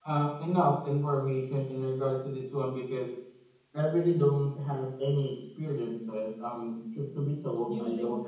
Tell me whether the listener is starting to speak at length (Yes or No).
No